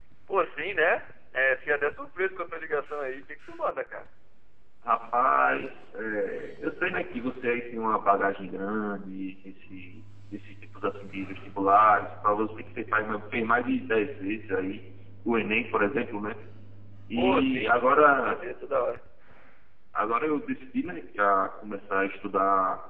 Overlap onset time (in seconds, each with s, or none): 17.1 s